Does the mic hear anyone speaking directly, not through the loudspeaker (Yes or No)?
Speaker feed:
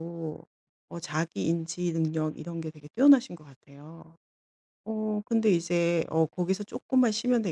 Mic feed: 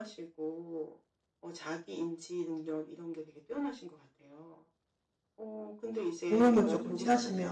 Yes